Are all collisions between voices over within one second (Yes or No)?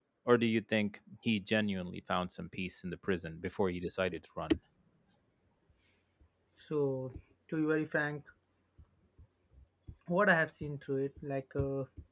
Yes